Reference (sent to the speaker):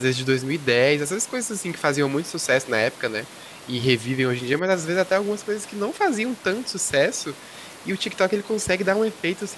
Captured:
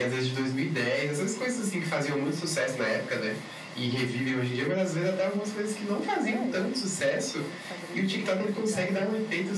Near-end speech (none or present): present